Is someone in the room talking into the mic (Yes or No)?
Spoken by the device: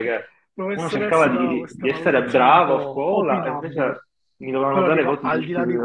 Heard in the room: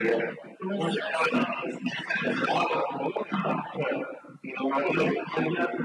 No